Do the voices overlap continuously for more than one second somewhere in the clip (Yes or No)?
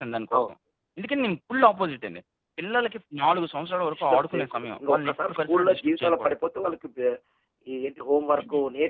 Yes